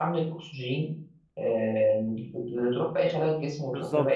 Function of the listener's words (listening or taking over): taking over